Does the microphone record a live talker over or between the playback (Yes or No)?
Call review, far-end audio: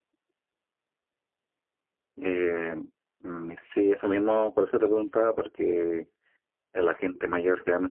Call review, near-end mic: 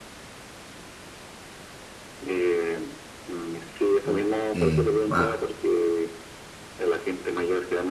Yes